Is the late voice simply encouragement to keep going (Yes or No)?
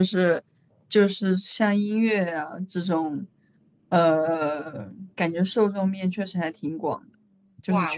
No